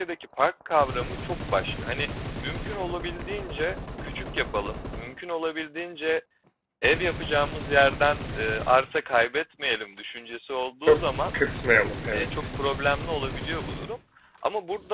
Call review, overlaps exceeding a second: none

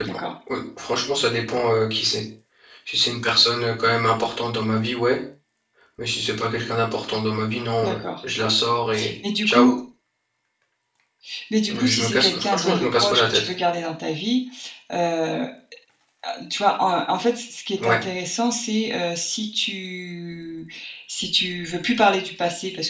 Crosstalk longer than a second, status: present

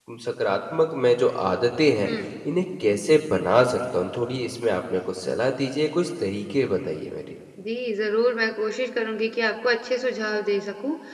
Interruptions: none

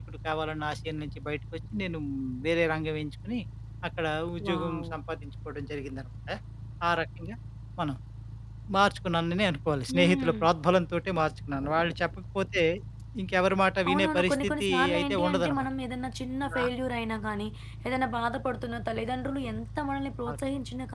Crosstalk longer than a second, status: present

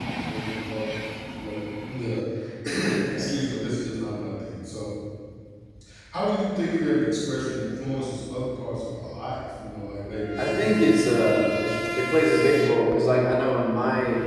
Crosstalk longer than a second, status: none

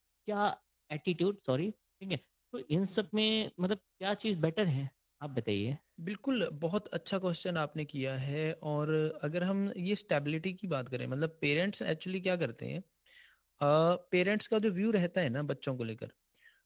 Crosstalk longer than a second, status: none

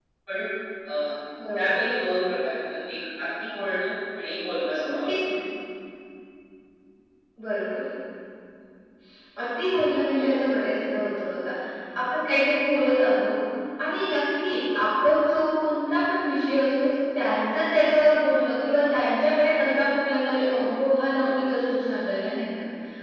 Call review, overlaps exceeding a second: none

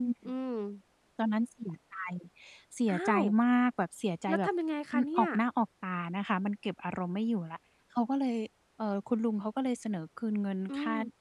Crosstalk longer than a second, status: none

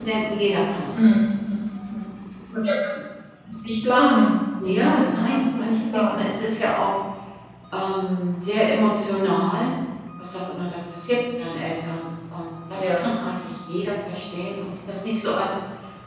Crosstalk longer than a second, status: present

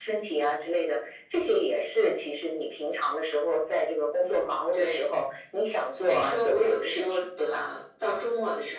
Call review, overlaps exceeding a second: present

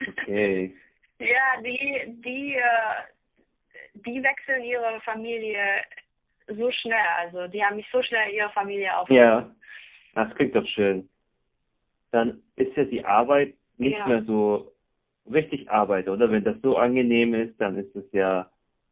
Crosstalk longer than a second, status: none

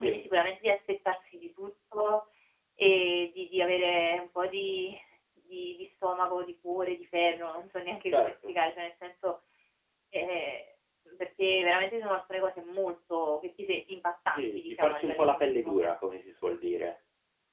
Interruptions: present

